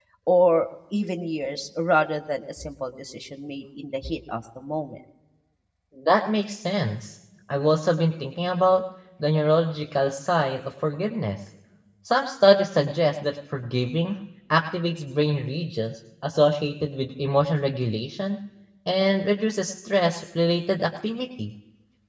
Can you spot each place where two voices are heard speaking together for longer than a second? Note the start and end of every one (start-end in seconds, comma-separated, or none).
none